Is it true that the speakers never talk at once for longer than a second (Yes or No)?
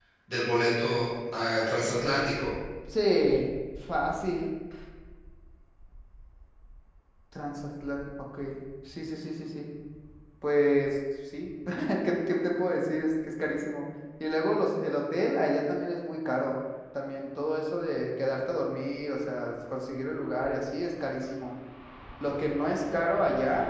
Yes